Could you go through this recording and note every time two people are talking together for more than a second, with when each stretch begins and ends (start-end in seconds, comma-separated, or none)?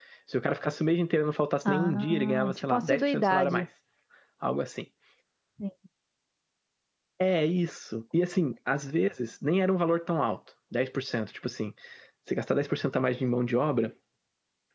1.6-3.6